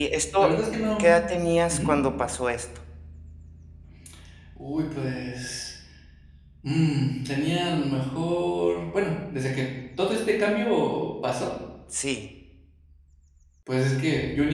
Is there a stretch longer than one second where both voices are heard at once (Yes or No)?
No